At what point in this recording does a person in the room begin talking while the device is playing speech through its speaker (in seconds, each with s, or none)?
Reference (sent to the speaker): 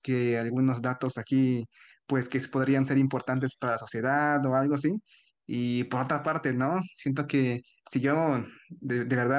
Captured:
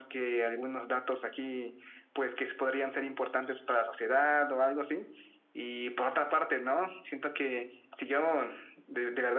none